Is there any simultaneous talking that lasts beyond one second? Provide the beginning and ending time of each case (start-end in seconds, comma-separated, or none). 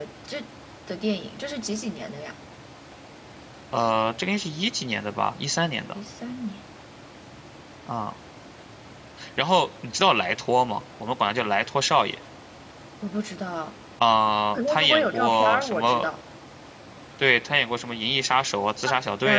14.5-16.1